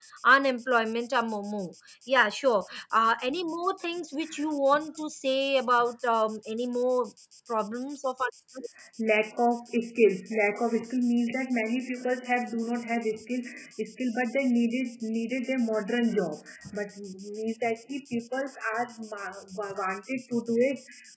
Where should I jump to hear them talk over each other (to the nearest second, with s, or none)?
none